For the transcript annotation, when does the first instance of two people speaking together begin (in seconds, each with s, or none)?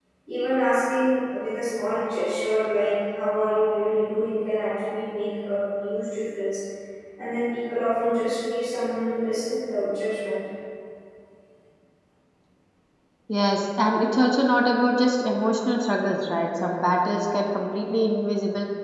none